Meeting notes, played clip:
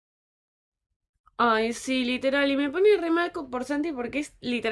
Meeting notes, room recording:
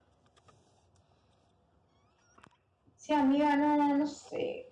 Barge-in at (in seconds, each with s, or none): 2.9 s